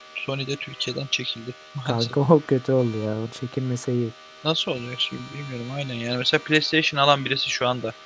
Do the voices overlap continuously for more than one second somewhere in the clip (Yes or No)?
No